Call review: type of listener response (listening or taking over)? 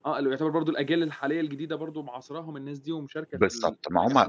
taking over